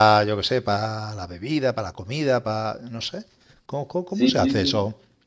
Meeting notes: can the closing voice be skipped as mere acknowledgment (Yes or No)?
No